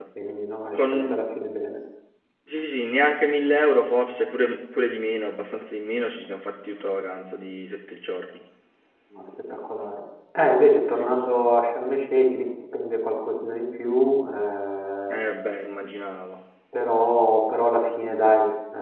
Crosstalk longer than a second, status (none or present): none